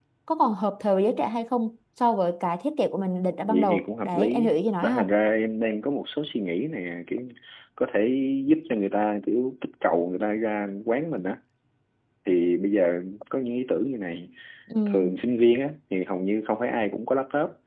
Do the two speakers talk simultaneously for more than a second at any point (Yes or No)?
Yes